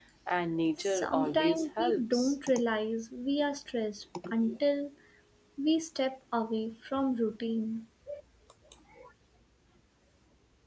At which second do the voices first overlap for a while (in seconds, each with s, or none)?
0.8 s